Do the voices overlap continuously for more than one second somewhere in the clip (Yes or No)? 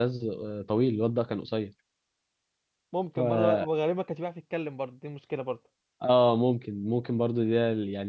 No